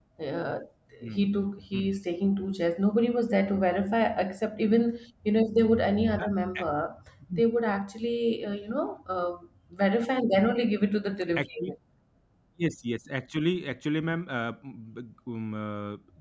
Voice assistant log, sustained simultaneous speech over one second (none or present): none